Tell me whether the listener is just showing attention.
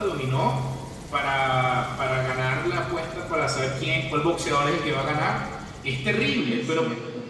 Yes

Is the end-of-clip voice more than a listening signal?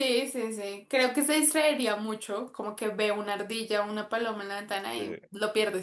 No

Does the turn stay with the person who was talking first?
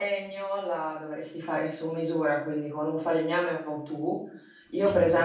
Yes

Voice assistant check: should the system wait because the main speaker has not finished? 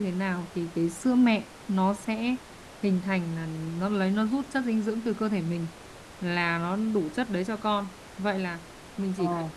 Yes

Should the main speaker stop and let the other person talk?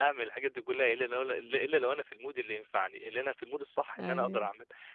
No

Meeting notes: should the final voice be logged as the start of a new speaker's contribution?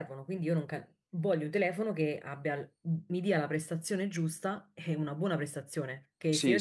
No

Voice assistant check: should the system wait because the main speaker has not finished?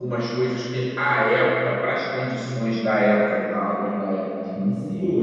Yes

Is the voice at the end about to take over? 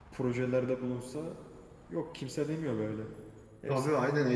Yes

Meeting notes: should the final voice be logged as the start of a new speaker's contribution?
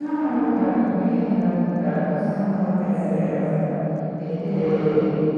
No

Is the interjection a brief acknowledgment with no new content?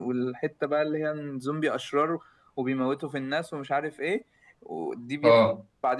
Yes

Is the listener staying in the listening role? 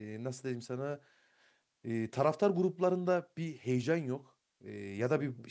Yes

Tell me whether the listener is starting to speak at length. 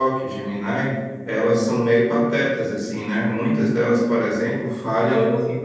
No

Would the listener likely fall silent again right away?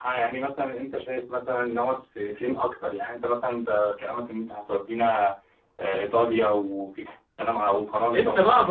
No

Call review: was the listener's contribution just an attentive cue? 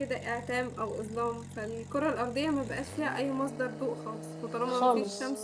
Yes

